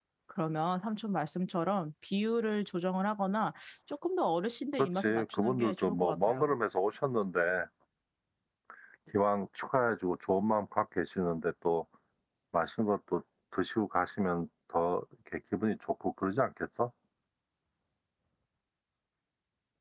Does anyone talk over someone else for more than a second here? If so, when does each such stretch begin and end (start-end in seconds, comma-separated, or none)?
4.8-6.5